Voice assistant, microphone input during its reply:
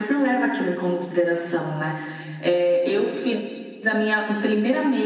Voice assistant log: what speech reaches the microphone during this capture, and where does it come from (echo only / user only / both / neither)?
echo only